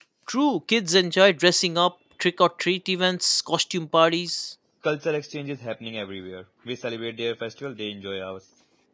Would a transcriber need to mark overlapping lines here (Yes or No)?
No